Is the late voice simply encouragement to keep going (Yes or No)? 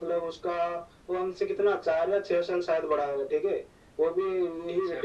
Yes